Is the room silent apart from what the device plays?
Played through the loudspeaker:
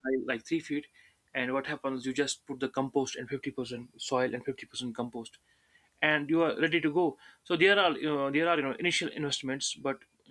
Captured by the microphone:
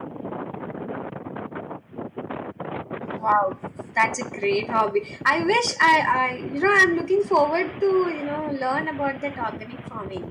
No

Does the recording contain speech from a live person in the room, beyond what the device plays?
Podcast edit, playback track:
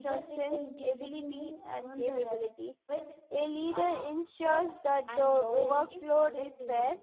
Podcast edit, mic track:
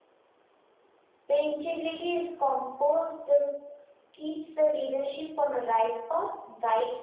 Yes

